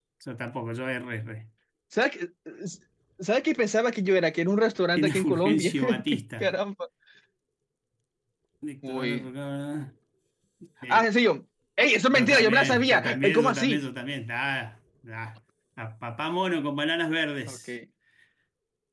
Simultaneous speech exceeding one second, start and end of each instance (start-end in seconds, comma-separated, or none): 5.0-6.5, 12.1-13.8